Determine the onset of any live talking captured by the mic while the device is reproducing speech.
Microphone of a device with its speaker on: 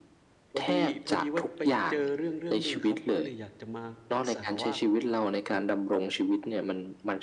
1 s

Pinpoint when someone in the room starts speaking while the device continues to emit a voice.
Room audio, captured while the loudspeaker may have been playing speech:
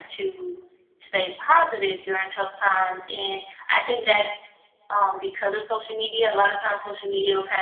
none

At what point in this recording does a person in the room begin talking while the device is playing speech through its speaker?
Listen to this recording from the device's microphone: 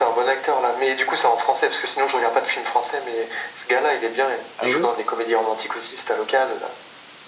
5 s

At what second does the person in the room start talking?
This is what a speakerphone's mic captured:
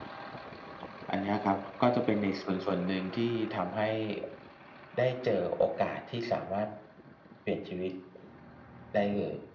none

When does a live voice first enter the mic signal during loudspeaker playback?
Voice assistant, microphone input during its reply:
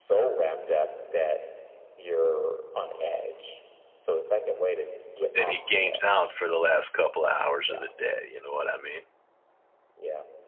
5 s

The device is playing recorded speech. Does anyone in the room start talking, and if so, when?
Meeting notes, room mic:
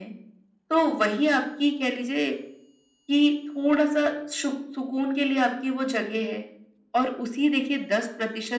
none

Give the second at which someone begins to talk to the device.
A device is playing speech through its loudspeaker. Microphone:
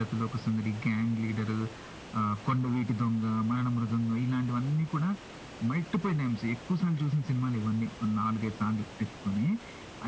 none

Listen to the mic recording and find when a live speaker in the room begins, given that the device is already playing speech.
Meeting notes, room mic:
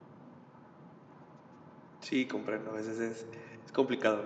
2 s

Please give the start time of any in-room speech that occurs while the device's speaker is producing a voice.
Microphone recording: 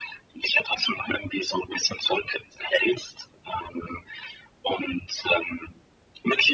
none

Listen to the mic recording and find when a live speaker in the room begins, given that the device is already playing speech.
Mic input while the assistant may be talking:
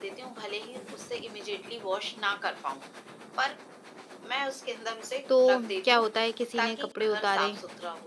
5 s

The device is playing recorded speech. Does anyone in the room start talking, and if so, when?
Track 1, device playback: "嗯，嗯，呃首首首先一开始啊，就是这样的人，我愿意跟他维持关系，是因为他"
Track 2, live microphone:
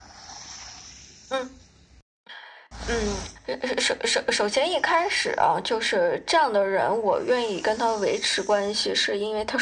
none

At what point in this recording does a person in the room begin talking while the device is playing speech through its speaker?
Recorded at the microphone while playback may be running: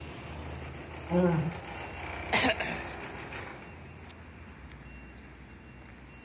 1 s

